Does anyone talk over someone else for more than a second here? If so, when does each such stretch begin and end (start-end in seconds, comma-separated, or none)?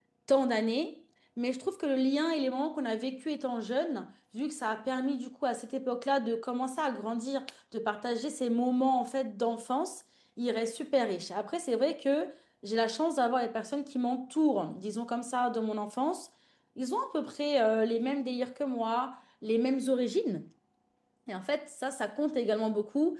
none